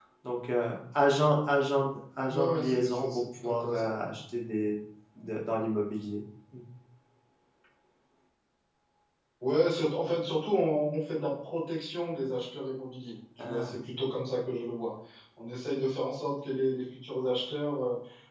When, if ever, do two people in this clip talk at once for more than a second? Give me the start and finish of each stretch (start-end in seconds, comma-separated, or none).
2.3-4.0